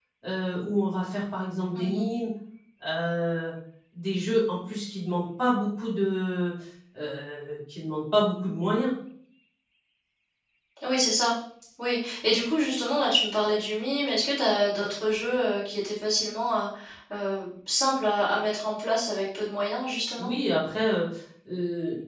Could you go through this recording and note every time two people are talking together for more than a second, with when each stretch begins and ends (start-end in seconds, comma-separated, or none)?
none